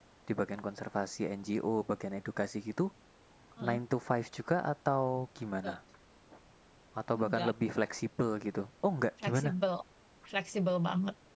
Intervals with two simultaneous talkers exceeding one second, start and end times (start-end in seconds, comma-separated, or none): none